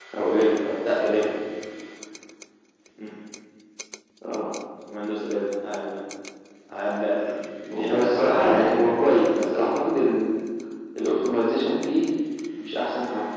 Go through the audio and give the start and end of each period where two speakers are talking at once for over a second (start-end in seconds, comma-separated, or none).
7.7-9.7